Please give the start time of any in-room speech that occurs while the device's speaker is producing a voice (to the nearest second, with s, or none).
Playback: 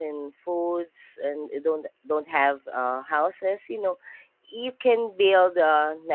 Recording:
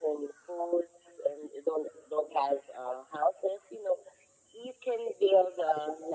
none